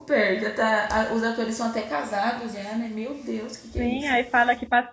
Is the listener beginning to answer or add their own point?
Yes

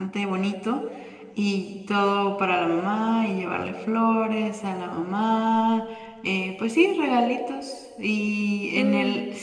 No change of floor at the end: Yes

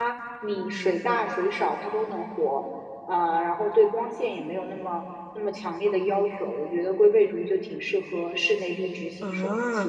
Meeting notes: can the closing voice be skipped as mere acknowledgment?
No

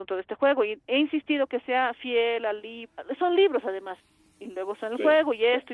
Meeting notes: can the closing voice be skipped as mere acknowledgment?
Yes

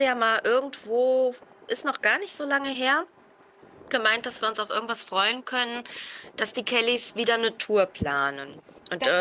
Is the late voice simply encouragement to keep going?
No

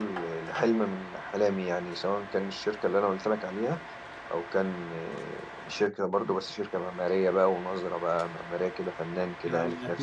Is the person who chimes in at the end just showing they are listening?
No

